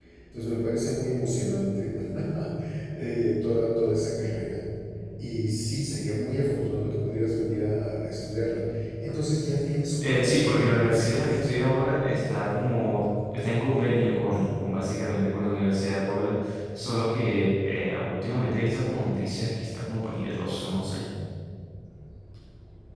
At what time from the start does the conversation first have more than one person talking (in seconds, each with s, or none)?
10.0 s